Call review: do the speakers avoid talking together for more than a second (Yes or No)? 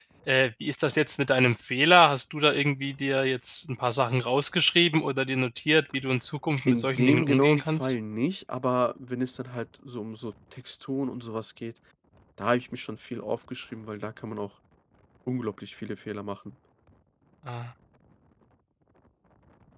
No